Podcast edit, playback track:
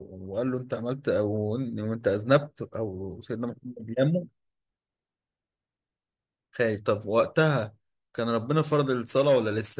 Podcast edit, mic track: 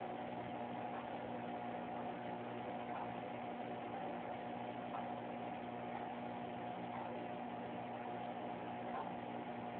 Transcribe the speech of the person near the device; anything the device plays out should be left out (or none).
none